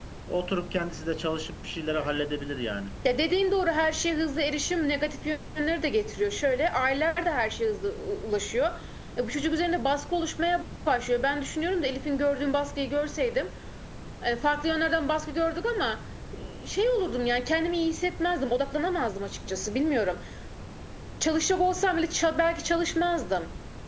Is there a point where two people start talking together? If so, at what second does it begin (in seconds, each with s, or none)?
none